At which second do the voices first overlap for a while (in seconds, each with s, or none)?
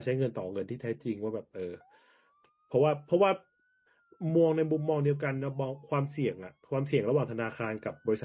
none